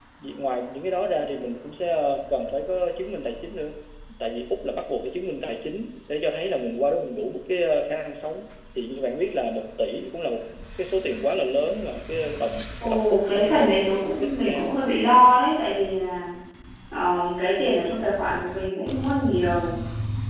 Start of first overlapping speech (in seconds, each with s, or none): 12.8 s